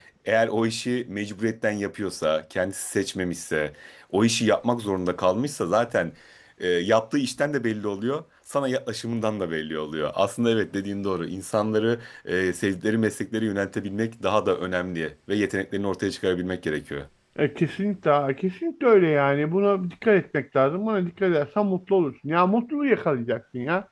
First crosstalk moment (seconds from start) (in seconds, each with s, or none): none